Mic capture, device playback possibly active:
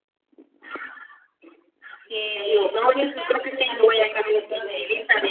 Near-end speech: present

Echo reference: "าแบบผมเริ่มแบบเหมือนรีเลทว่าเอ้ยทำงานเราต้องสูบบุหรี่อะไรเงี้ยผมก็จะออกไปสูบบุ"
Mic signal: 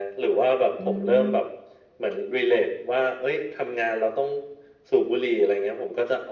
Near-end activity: present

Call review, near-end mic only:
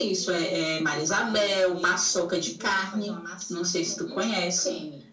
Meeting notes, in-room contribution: present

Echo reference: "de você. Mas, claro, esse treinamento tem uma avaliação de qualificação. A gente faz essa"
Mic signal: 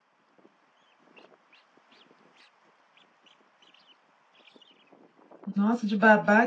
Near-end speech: present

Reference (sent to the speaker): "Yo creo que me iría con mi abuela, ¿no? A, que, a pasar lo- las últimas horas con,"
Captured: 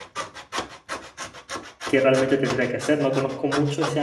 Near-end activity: present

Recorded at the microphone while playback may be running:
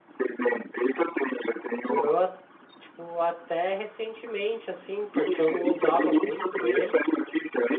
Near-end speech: present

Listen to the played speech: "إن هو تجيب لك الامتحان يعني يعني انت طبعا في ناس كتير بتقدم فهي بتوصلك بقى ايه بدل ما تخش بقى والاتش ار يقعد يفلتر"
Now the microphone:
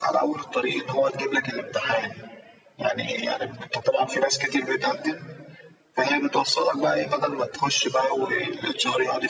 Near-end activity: none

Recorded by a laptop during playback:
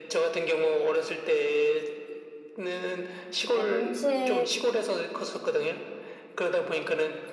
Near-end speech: present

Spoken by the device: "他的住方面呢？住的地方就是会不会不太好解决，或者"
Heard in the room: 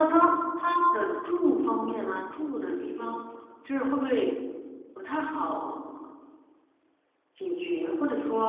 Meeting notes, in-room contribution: none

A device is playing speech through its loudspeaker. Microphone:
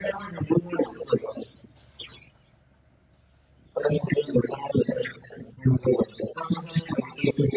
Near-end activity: none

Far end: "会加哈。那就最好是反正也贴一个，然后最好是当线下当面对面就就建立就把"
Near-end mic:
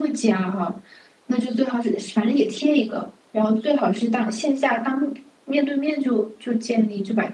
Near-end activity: none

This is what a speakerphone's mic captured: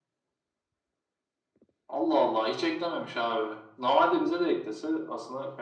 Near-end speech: none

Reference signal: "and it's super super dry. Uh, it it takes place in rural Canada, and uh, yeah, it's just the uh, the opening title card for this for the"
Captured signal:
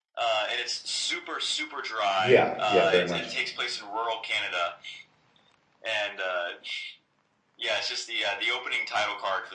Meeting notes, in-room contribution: present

